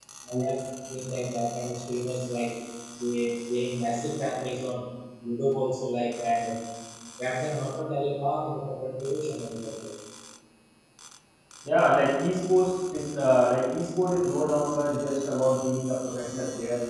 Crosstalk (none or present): none